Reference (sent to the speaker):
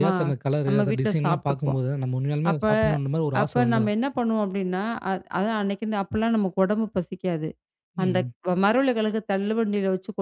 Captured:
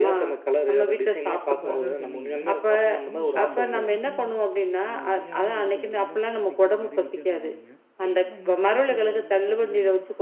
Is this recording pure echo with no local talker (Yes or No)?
No